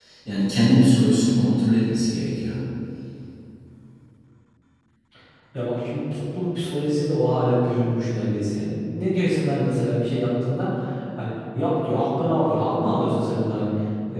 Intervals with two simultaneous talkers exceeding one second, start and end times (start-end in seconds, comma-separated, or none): none